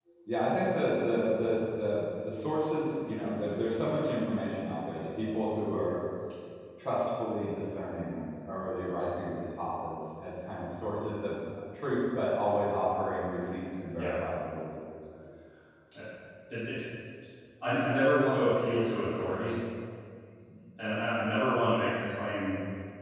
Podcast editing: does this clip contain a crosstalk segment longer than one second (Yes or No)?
No